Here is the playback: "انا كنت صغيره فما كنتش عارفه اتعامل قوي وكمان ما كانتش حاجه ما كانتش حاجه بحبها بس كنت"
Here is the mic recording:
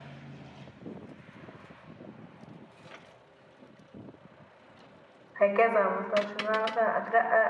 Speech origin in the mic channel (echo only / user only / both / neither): user only